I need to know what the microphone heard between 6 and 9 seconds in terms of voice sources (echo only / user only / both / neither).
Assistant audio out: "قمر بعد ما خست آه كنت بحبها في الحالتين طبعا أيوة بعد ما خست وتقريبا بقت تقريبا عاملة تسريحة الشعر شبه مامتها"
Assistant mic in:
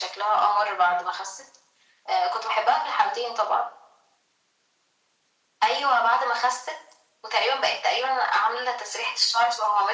echo only